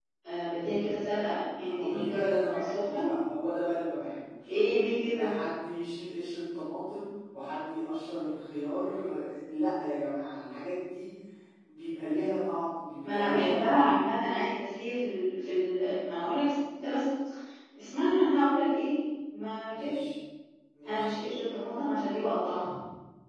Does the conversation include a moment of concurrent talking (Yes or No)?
Yes